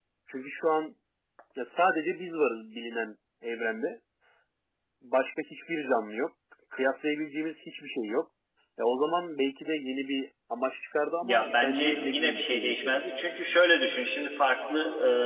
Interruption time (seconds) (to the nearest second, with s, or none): 11 s